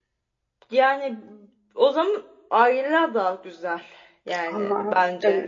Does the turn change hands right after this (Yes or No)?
Yes